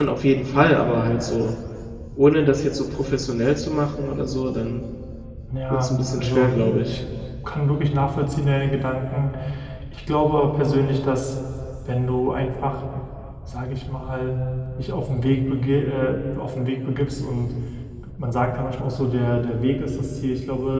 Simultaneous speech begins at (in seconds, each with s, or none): 5.7 s